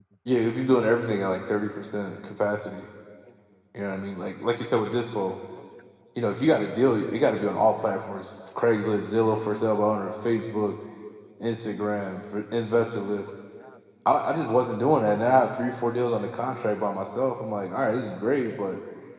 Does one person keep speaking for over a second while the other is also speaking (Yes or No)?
No